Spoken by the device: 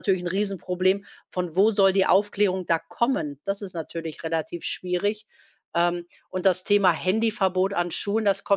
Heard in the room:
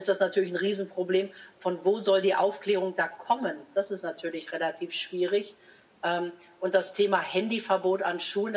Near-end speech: none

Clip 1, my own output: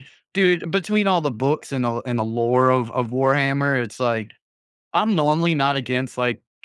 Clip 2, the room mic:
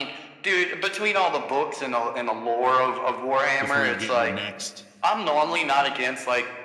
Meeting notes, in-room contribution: present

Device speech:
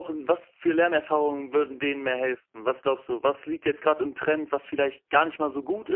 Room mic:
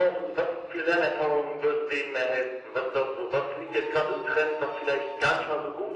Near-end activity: none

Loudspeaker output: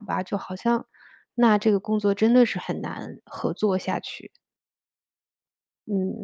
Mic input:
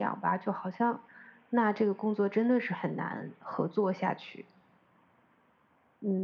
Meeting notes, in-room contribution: none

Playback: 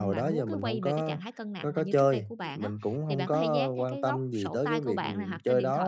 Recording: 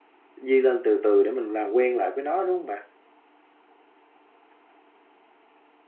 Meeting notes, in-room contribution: present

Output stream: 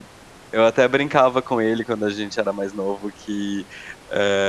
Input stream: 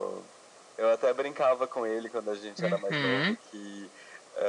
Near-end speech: present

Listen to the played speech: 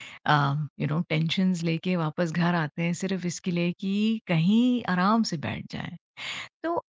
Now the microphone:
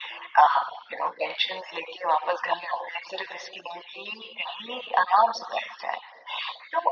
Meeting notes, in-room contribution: none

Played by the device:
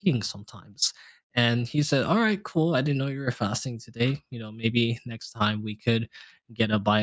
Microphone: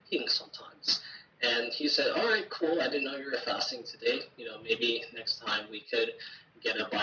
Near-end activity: none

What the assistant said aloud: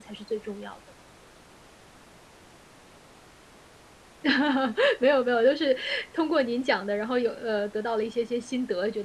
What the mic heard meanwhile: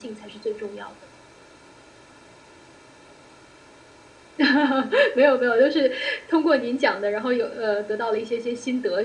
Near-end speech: none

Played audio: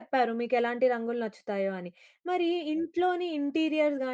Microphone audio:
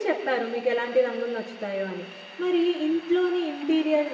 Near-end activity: none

